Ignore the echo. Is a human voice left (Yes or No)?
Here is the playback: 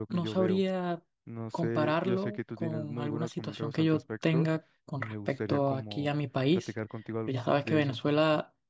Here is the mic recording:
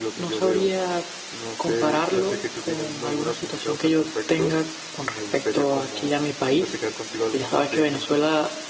No